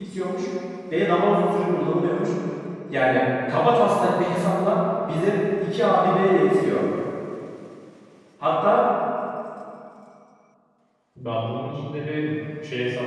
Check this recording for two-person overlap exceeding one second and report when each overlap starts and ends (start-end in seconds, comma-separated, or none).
none